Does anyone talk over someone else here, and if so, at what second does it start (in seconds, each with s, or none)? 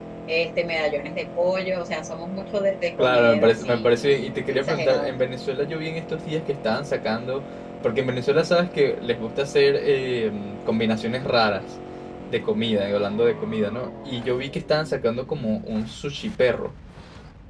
3.0 s